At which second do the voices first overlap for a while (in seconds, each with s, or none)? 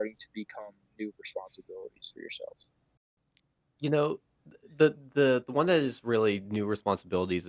none